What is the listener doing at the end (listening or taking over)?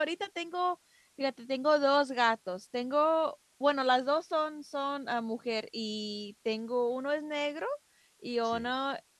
listening